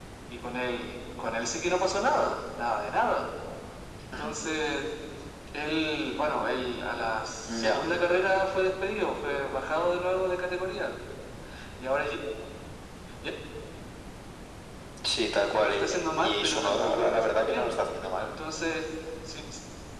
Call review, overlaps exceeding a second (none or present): present